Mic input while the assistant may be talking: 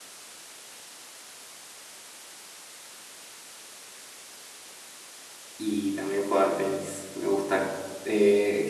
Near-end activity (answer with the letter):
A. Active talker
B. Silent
A